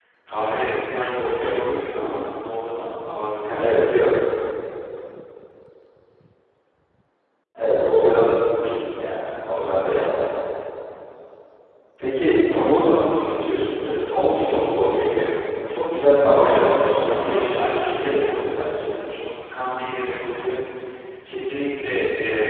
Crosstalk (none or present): present